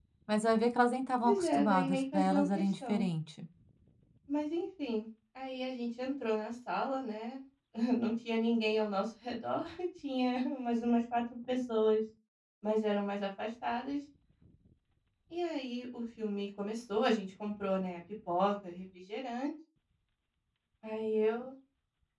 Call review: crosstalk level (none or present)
present